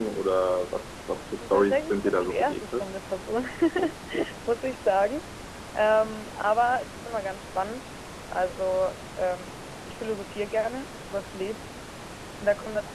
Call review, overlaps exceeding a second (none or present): present